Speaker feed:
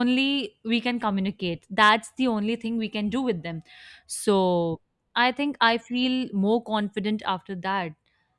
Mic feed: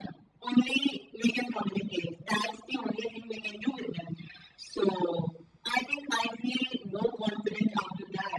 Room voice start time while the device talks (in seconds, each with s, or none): none